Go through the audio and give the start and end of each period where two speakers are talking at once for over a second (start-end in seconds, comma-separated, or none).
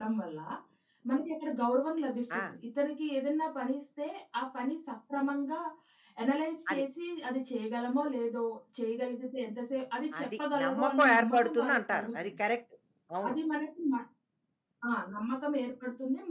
10.2-12.3